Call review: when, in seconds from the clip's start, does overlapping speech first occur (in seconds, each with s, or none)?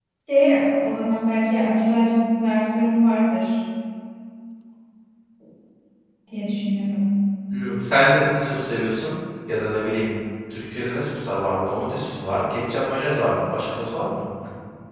none